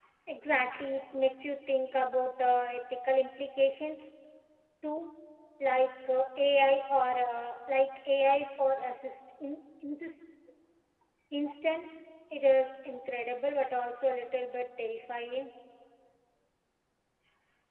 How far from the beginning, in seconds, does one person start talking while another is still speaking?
none

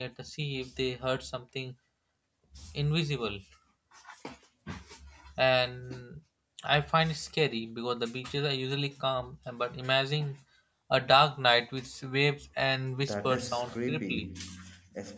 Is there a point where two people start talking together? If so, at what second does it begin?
13.0 s

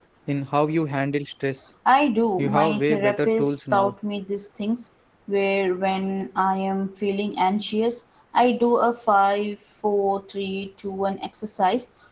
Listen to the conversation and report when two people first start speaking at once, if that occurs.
2.4 s

